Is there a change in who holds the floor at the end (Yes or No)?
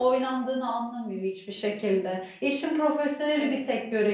No